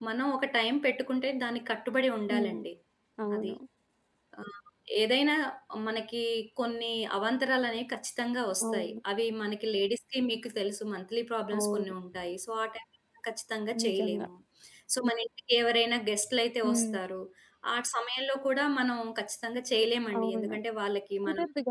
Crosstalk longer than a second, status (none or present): none